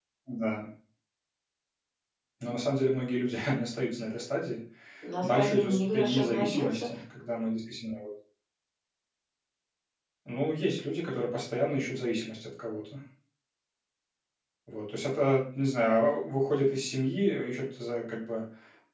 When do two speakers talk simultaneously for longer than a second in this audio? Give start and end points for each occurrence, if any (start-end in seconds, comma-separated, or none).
5.2-6.9